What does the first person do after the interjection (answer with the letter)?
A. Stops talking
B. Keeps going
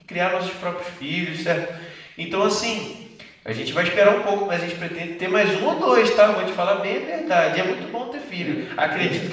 B